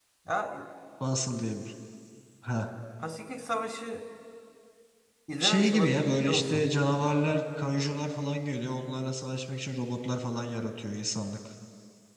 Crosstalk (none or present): present